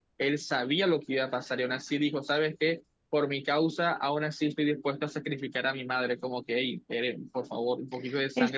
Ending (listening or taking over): taking over